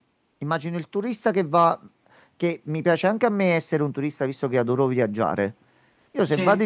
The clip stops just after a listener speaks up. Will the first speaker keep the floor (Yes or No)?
Yes